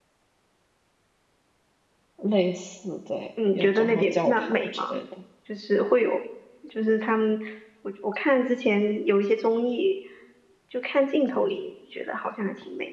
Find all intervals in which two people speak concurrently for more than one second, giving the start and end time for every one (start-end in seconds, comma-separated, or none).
3.5-5.0